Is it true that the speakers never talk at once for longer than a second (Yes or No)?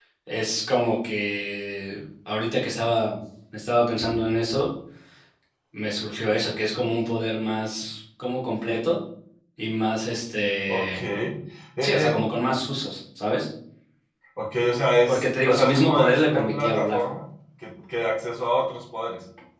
No